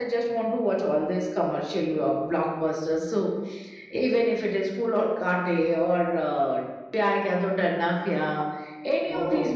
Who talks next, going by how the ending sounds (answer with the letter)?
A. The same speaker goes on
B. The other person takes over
A